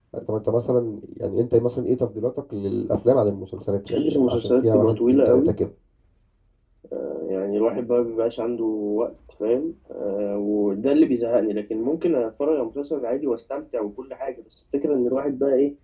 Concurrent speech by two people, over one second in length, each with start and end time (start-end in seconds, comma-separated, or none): 3.9-5.5